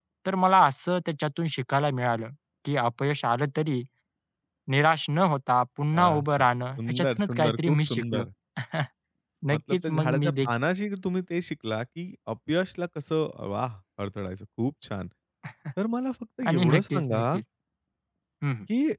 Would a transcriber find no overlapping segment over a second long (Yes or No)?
No